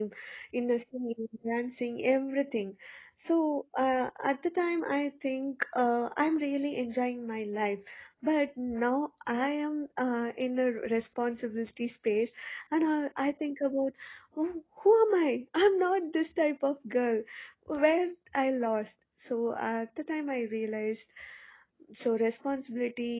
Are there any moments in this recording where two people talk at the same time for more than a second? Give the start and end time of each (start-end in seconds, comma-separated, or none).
none